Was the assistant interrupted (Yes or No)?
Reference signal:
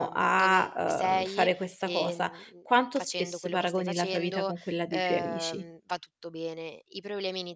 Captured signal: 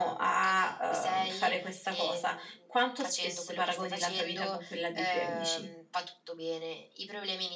No